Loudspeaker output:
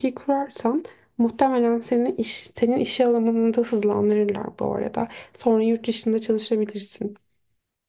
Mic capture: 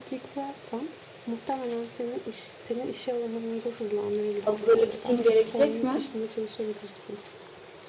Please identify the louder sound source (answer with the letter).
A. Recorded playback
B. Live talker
B